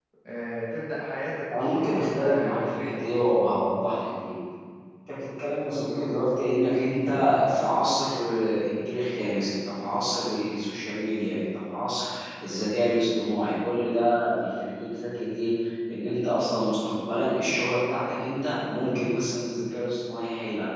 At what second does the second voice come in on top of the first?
1.5 s

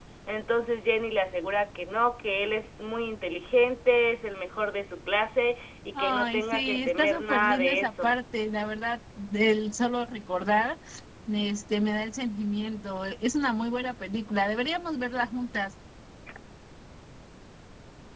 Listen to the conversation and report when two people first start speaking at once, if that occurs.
6.0 s

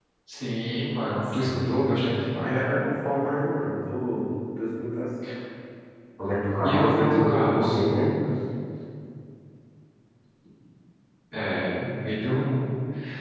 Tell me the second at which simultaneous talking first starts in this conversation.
1.4 s

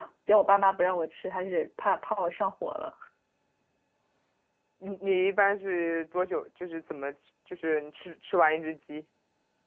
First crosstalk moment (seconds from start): none

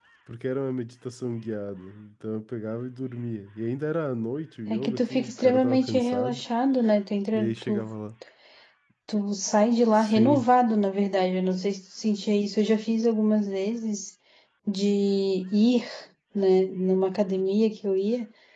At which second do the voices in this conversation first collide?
4.7 s

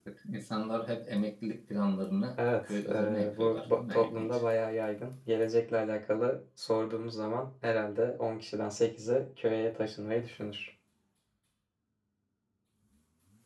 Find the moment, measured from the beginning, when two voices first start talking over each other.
2.4 s

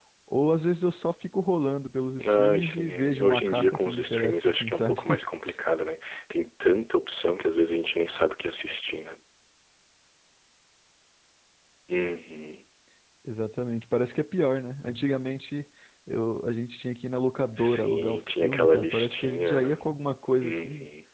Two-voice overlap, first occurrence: 2.2 s

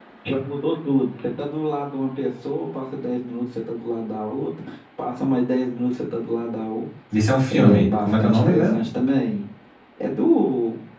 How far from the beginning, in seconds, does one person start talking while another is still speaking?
7.5 s

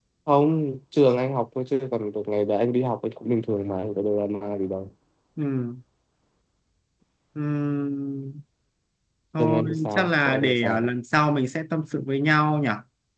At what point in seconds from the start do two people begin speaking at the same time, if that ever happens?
9.4 s

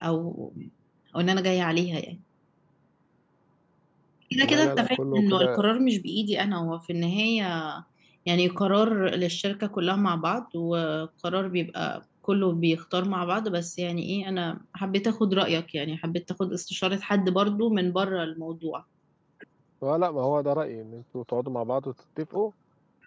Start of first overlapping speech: 4.4 s

